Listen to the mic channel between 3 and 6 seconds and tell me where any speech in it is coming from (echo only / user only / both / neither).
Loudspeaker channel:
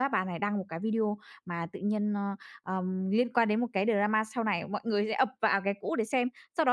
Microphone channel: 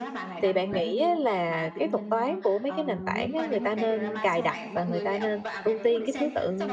both